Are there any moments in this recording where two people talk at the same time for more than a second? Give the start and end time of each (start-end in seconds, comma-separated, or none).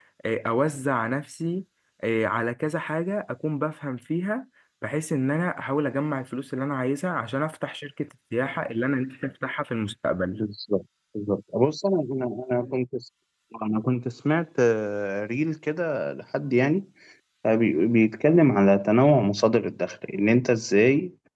none